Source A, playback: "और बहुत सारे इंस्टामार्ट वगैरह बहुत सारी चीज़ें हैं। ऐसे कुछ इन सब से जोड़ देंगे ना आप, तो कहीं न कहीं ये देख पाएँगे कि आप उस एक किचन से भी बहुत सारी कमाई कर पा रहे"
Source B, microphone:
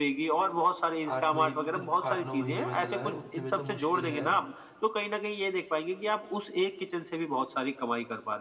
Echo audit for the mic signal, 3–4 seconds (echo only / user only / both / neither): both